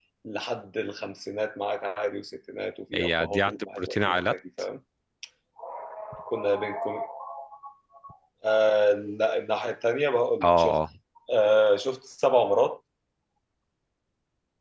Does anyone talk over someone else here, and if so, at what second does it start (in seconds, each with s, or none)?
2.9 s